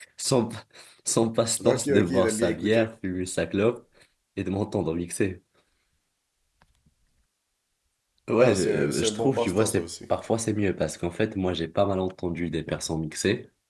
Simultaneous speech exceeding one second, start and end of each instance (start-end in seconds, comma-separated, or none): 1.6-2.9, 8.4-9.9